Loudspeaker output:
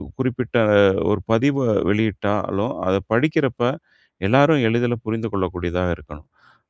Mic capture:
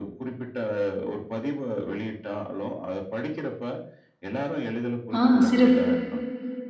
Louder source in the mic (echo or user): user